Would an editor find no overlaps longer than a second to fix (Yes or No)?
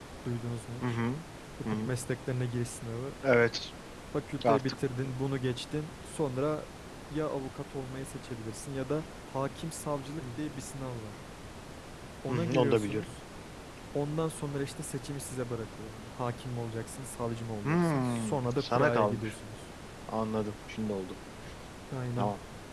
No